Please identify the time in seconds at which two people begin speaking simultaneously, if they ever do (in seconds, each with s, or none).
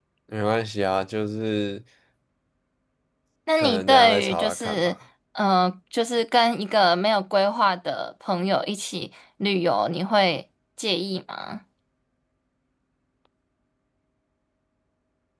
3.6 s